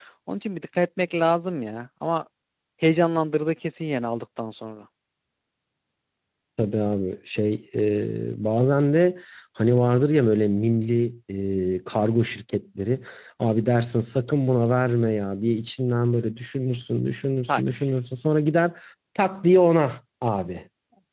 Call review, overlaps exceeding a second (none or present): none